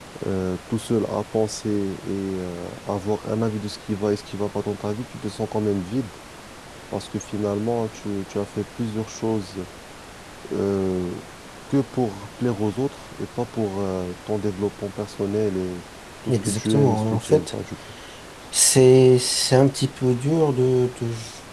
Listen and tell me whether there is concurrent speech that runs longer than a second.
Yes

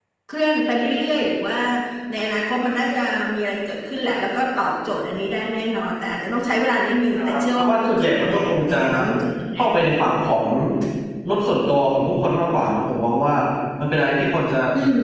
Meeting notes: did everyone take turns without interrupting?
No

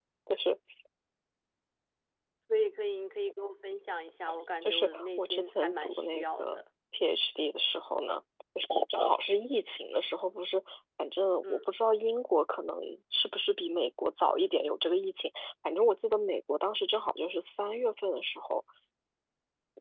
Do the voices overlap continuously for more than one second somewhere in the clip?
Yes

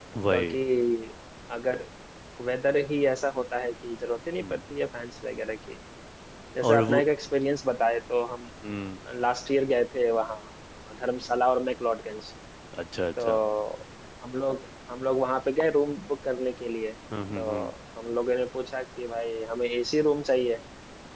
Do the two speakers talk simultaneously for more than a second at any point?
No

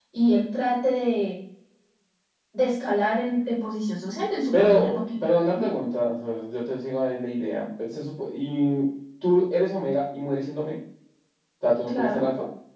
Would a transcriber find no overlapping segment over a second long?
No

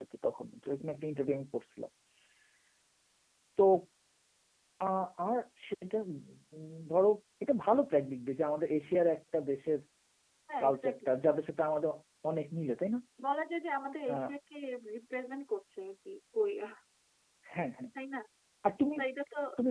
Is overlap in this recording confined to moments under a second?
Yes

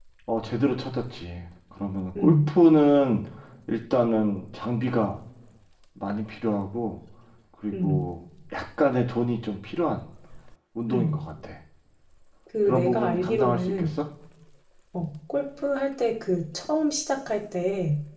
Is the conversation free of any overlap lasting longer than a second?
No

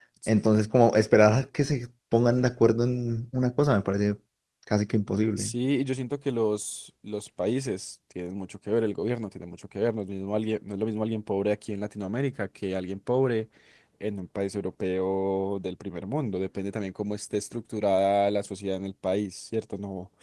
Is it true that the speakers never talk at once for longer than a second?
Yes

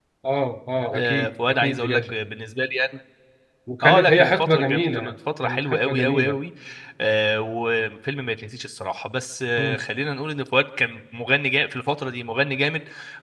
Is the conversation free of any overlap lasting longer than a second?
No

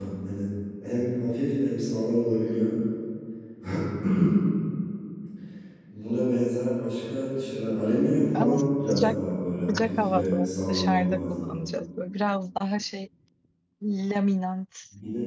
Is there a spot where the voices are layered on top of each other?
Yes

